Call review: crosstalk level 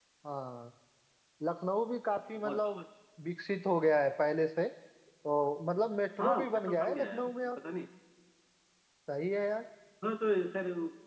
present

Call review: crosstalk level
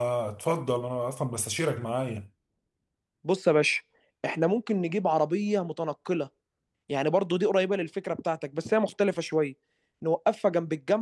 none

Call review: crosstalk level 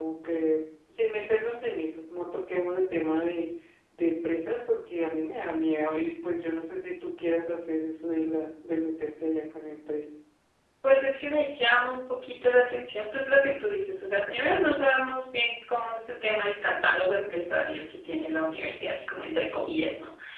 none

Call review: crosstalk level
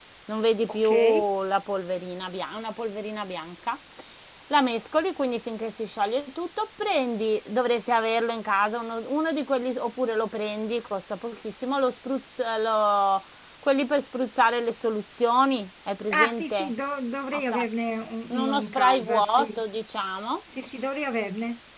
present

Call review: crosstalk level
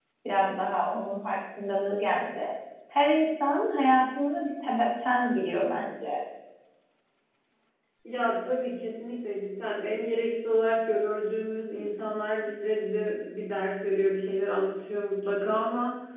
none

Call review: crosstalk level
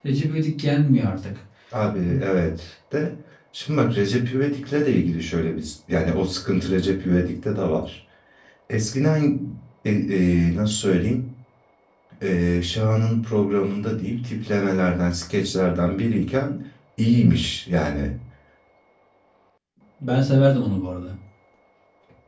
none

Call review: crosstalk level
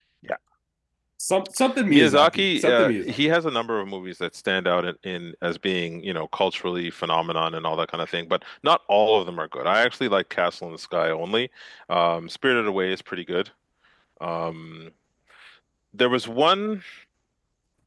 present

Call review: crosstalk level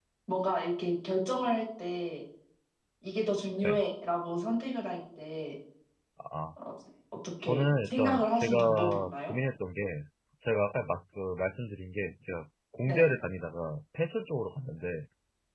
present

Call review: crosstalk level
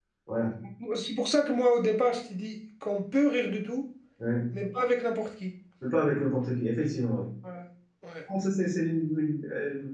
none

